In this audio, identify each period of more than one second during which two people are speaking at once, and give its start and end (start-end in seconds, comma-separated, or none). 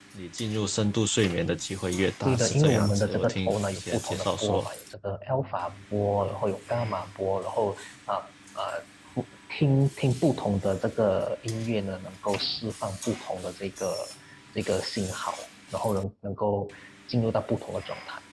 2.2-4.7